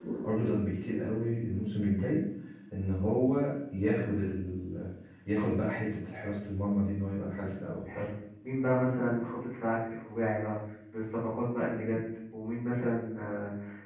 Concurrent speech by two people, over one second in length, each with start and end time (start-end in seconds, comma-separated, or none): none